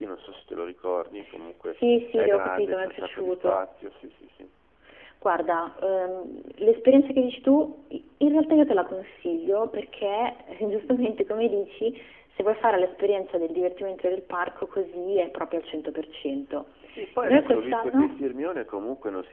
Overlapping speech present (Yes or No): Yes